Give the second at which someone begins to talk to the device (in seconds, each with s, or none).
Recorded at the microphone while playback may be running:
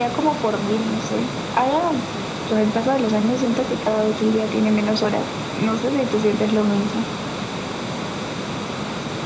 none